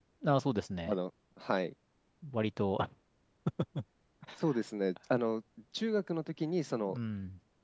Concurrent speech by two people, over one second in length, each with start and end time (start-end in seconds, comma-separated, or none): none